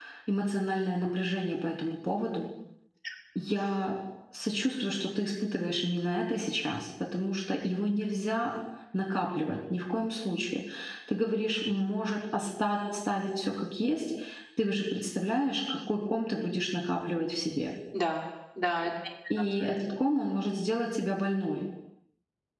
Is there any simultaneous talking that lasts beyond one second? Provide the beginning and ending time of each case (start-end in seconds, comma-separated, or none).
none